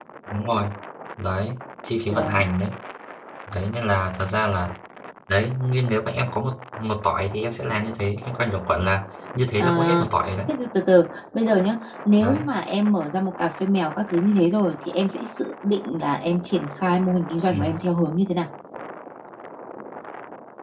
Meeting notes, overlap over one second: none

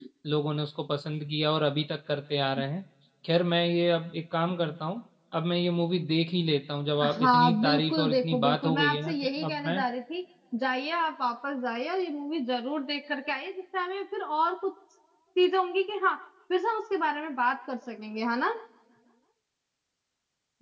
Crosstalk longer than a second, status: present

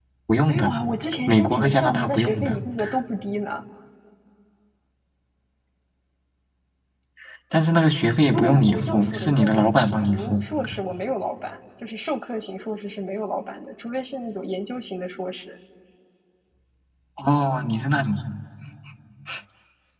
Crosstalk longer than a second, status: present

